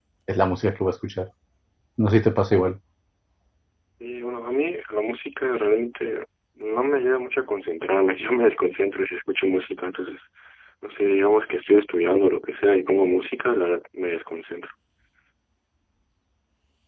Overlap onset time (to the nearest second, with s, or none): none